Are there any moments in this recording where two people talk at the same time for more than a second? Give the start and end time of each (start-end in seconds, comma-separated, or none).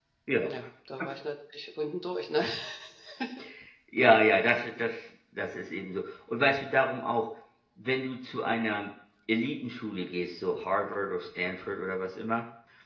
none